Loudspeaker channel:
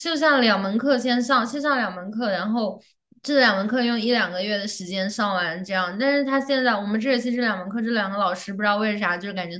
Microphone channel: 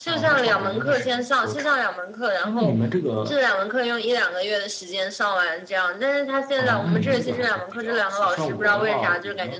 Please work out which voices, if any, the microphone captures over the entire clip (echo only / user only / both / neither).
both